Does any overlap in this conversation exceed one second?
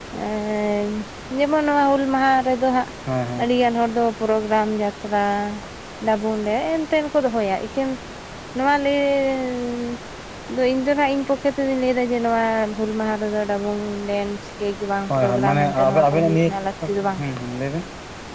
Yes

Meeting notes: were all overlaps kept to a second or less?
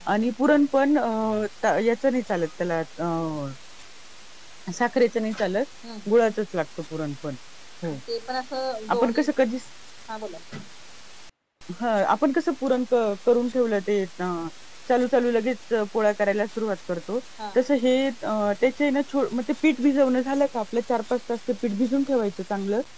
Yes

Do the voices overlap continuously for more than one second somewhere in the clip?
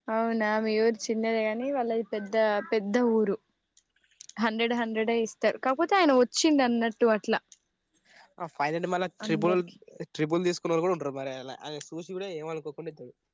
No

